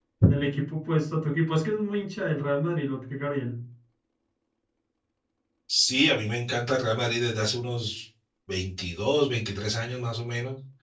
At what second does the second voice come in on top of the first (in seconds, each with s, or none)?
none